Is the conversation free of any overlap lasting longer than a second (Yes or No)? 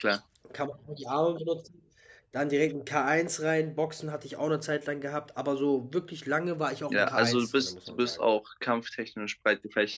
No